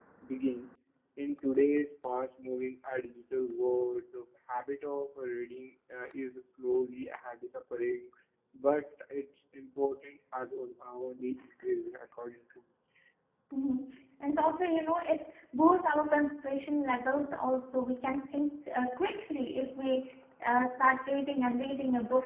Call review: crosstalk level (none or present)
none